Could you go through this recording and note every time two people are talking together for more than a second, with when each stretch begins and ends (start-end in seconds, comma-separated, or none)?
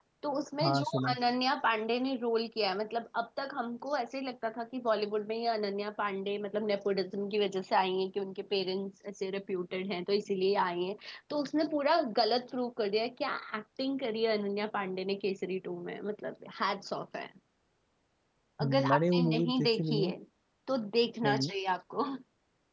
18.6-20.1